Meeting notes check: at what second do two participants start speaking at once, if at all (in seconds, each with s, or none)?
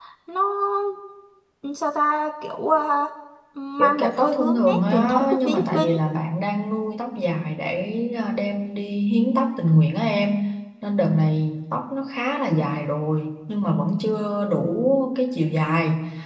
3.8 s